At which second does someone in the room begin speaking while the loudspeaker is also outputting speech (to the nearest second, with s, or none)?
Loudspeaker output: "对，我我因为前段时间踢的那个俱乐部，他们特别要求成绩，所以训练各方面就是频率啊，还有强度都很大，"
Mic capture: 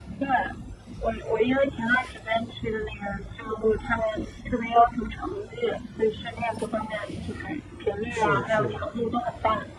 8 s